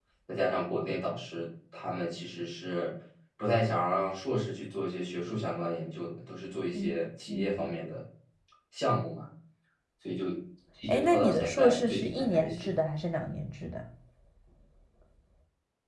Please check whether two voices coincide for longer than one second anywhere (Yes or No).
Yes